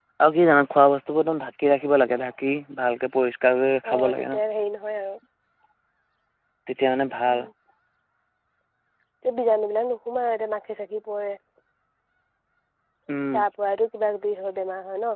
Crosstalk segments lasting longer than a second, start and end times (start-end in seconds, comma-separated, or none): none